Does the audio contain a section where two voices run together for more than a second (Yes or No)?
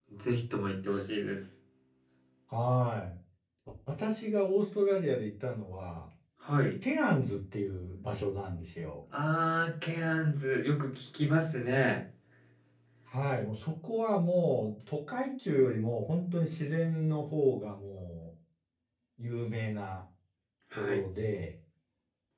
No